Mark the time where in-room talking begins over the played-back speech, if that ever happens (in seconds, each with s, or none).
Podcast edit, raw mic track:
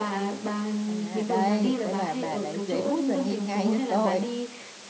0.8 s